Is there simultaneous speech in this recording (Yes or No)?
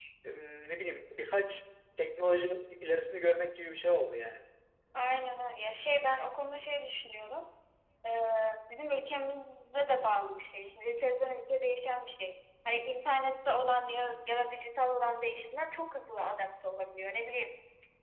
No